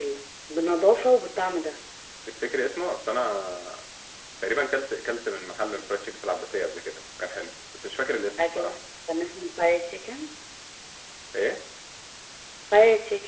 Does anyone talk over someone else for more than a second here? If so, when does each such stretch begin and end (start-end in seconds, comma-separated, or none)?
none